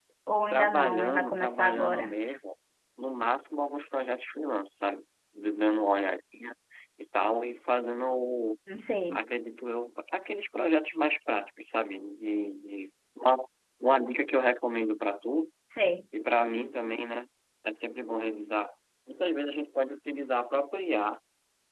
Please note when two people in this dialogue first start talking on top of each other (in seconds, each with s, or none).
0.5 s